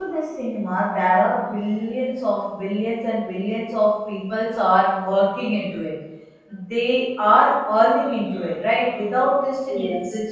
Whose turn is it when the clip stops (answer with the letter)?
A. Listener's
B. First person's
B